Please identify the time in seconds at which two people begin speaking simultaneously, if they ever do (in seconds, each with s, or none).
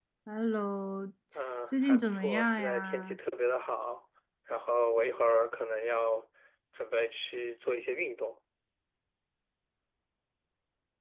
1.7 s